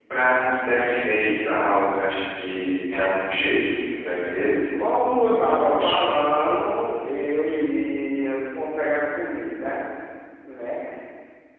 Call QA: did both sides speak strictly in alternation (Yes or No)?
No